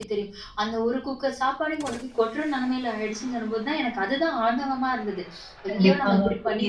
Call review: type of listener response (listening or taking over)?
taking over